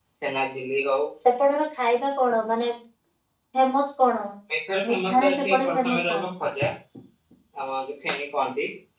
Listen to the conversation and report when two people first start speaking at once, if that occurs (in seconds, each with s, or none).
4.9 s